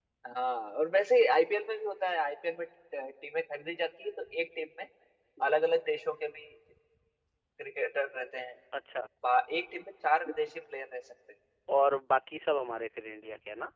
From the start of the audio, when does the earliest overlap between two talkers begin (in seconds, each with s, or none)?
none